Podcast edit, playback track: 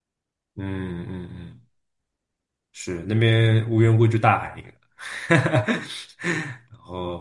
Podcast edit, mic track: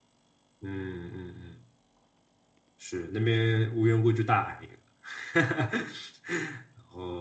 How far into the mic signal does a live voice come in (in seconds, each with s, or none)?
none